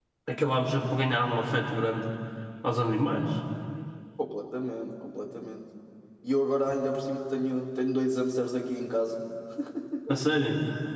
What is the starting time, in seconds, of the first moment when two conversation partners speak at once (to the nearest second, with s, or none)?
none